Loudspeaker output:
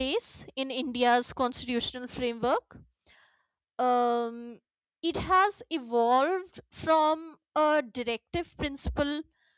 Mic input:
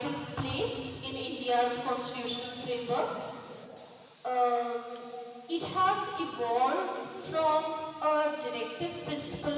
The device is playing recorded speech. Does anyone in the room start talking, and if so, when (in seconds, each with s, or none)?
none